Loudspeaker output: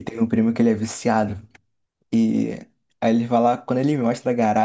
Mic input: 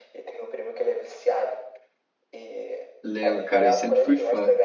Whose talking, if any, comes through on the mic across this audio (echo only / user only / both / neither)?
both